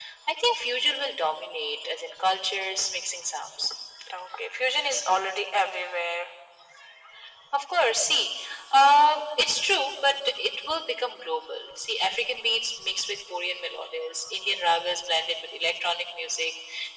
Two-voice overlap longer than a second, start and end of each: none

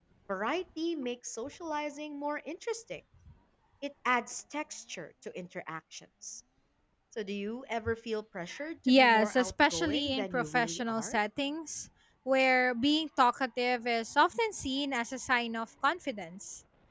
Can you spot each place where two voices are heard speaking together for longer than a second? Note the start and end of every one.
8.9-11.2

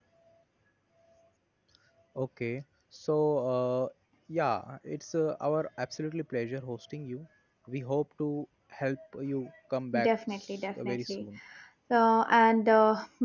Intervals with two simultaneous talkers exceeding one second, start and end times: 10.0-11.2

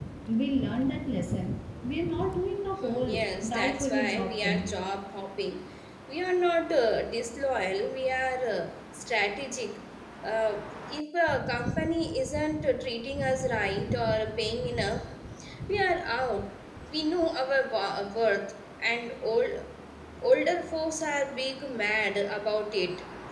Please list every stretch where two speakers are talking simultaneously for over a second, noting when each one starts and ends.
2.8-4.7

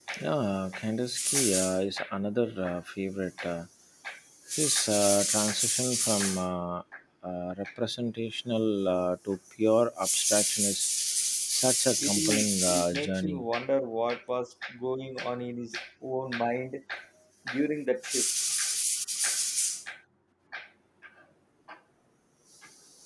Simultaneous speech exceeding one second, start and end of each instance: 12.0-13.4

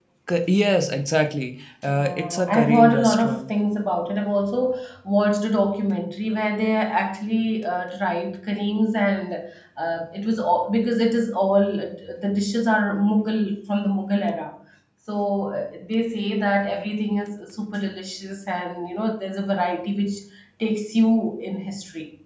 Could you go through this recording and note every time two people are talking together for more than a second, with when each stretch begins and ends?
1.9-3.5

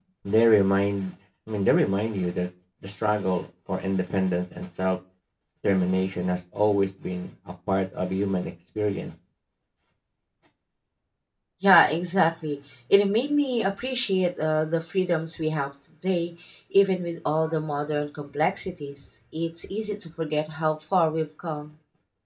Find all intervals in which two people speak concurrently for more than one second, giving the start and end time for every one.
none

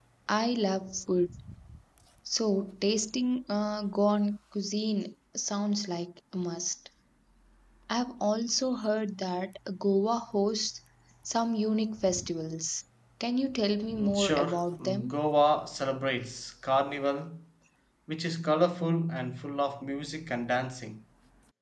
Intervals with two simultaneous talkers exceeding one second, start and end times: 14.0-15.2

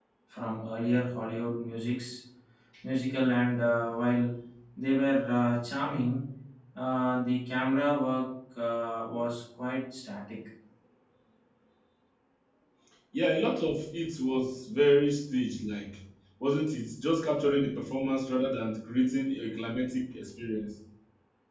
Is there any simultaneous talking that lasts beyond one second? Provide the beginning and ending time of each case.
none

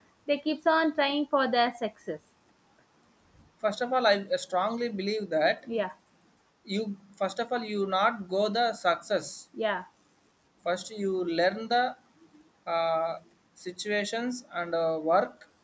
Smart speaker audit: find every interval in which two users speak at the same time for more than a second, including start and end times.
none

